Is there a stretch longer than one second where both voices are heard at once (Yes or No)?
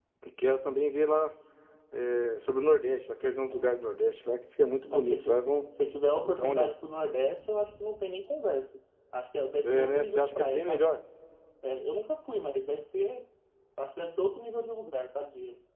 Yes